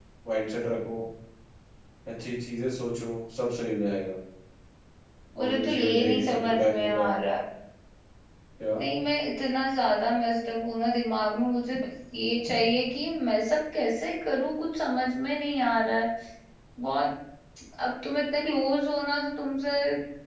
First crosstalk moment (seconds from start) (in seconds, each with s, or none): 5.4 s